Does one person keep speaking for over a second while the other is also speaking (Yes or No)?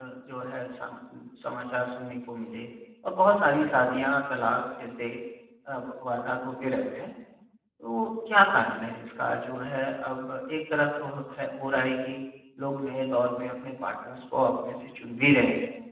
No